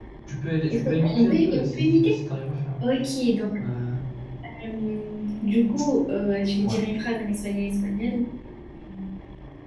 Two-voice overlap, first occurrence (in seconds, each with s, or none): 0.7 s